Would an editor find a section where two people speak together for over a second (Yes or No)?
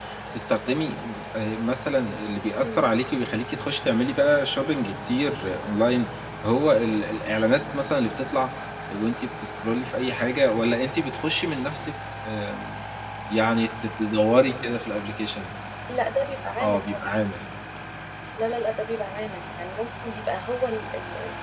No